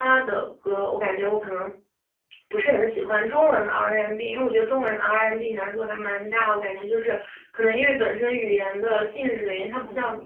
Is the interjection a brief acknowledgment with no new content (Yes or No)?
No